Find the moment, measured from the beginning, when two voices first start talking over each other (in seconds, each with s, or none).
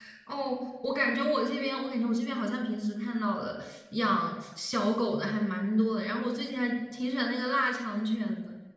none